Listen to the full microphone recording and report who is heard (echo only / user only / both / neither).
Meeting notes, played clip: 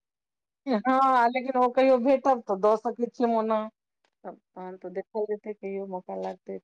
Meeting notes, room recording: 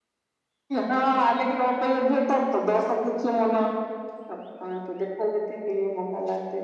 echo only